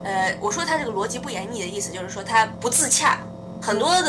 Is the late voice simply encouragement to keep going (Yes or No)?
Yes